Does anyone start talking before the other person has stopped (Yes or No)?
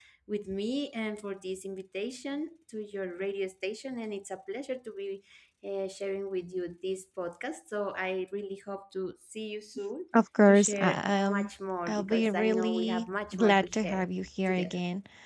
Yes